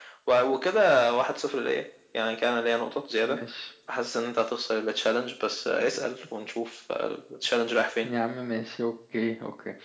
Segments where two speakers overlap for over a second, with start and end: none

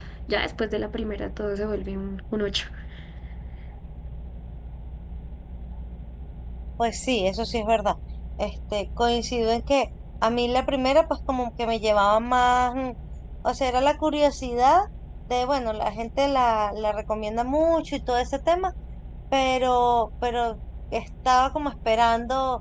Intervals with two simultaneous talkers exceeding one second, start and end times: none

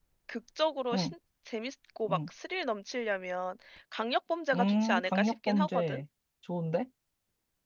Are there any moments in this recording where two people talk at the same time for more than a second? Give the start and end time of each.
4.5-6.0

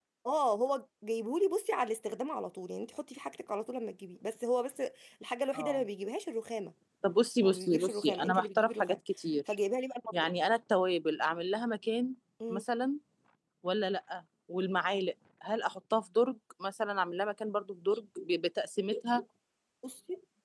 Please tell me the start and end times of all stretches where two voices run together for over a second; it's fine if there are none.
7.4-9.0

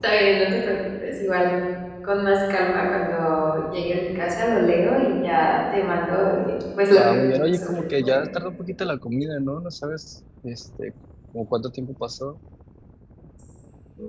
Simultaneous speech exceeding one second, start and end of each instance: 7.0-8.3

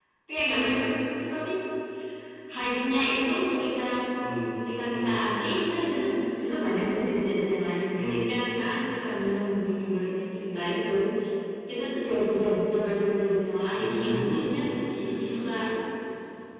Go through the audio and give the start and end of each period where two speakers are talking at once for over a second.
13.7-15.6

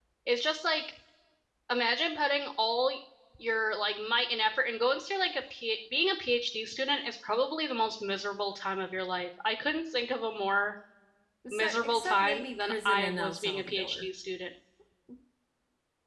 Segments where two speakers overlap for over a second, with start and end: 11.5-14.1

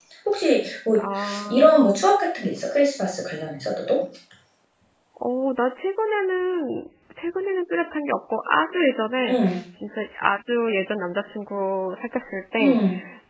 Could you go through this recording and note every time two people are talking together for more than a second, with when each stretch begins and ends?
none

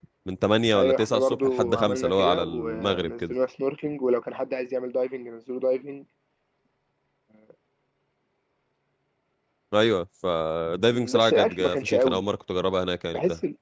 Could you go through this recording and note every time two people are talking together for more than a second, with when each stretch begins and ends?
0.8-3.3, 10.9-12.2

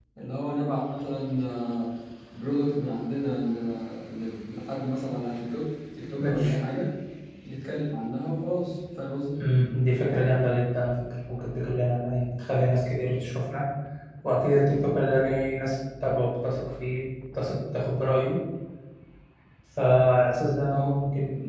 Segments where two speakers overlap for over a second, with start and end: none

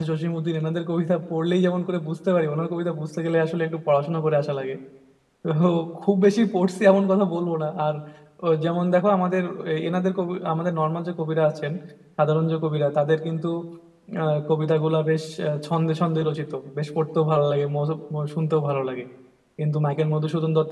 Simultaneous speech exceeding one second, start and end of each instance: none

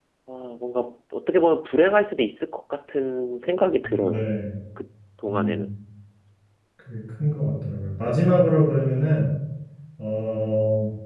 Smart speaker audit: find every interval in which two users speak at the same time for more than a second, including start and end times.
none

